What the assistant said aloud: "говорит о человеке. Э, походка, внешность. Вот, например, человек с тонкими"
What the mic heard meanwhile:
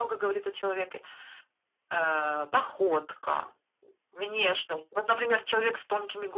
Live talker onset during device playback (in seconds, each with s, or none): none